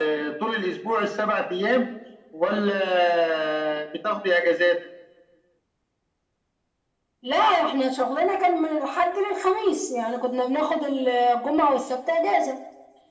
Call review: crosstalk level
none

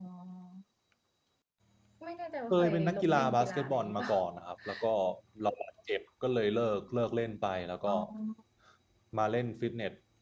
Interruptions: present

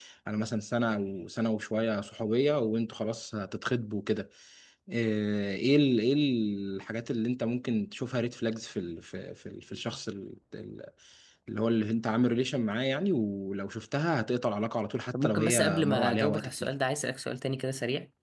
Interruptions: present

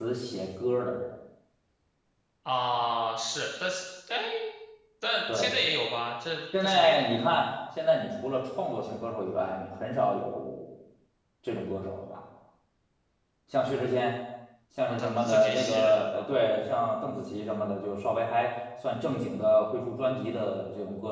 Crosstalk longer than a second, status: present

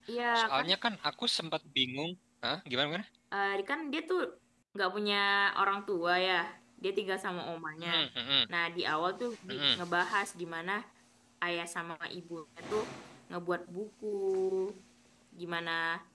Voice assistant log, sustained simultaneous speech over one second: none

